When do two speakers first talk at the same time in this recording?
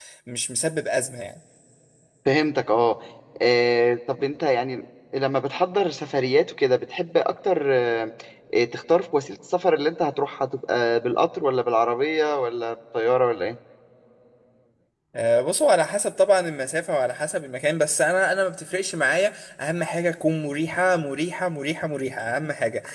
none

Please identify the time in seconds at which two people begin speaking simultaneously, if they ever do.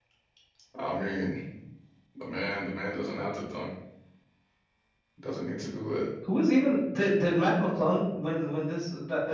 none

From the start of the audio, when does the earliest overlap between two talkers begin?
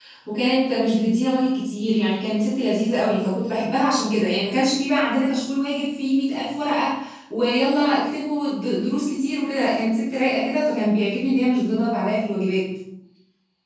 none

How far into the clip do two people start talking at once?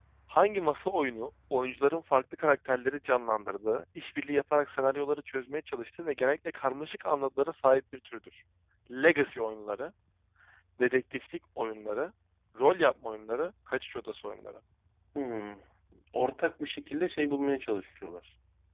none

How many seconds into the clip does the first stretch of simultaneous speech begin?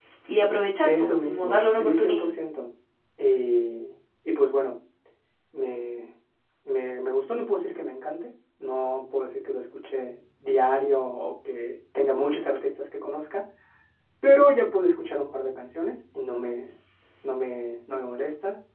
0.8 s

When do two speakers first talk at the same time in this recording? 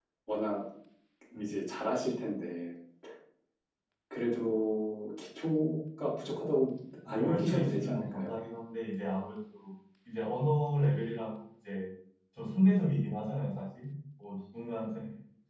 7.0 s

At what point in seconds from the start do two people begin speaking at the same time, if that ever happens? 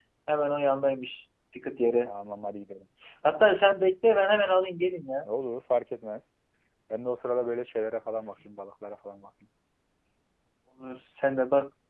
none

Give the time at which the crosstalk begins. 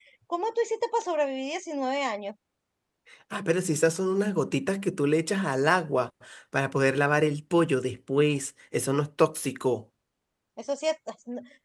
none

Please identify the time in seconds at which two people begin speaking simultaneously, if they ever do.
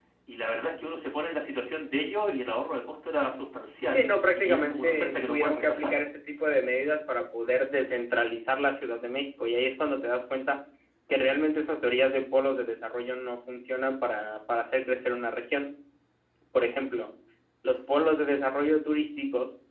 3.9 s

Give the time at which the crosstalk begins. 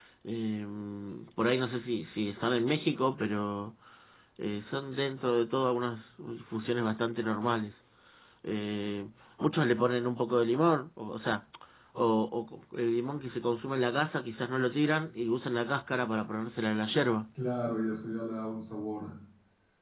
none

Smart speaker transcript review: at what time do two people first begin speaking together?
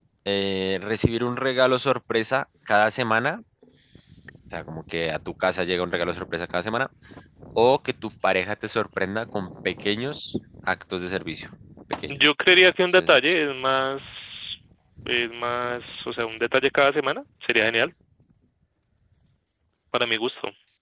12.1 s

